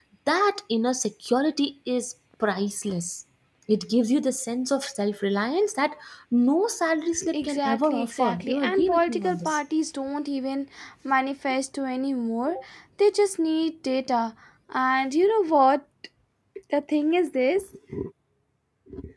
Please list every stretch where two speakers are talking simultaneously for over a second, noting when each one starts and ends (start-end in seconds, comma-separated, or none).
7.3-9.6